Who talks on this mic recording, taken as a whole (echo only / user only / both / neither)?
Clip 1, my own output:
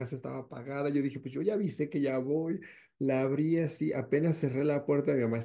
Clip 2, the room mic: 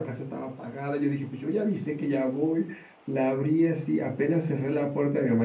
echo only